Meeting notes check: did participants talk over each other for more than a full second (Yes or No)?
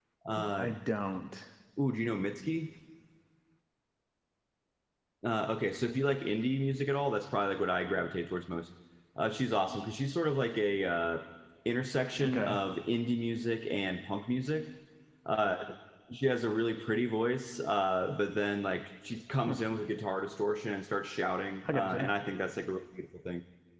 No